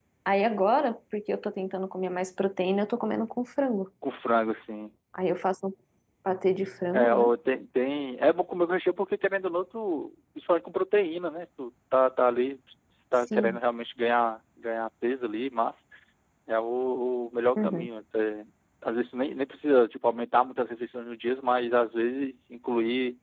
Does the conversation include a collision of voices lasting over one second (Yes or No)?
No